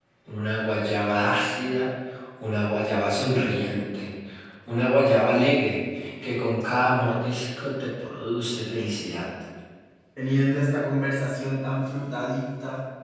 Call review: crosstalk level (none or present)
none